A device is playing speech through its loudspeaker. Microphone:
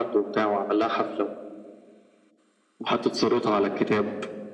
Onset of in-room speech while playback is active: none

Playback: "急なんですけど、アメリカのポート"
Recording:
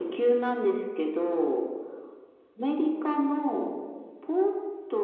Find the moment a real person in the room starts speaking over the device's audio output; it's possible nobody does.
none

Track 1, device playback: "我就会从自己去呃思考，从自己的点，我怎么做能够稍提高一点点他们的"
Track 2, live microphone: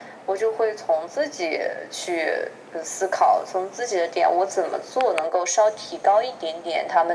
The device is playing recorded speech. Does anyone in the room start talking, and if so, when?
none

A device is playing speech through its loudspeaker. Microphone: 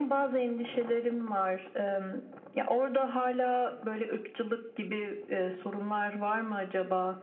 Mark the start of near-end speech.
none

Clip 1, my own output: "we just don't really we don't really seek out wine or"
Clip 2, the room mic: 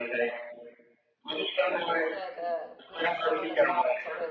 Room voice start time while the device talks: 1.9 s

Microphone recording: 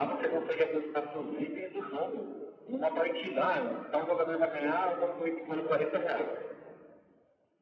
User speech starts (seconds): none

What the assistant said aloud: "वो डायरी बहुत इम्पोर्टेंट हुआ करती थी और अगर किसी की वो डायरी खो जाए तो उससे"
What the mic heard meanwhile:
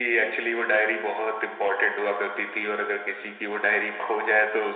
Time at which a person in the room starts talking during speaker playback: none

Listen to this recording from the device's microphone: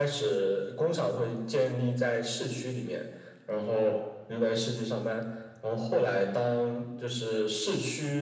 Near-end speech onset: none

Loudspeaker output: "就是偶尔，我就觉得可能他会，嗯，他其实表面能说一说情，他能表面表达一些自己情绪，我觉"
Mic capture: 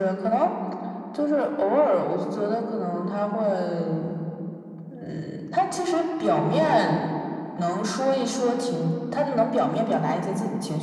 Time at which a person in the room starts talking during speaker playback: none

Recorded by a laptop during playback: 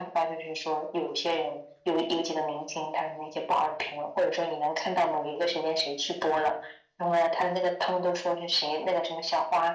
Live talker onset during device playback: none

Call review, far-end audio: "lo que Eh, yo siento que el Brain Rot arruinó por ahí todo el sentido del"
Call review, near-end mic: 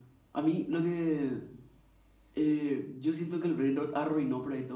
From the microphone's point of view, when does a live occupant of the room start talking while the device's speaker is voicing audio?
none

